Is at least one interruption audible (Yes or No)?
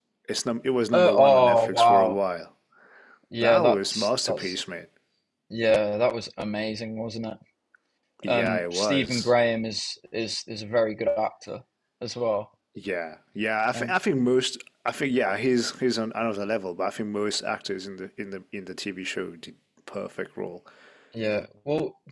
Yes